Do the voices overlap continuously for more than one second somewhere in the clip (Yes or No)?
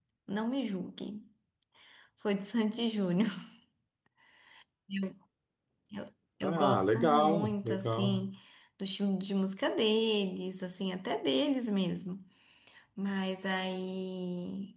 Yes